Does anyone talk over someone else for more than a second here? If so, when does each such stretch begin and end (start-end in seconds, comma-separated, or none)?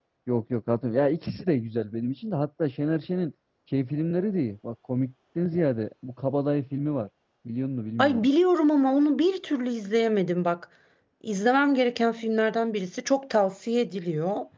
none